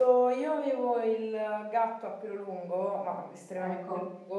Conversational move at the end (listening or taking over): listening